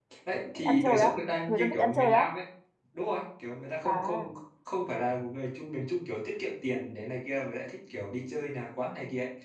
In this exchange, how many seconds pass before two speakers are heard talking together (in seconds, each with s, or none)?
0.6 s